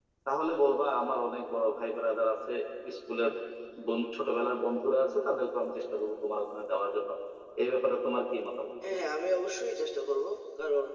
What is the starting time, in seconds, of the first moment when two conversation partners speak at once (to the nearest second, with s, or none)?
none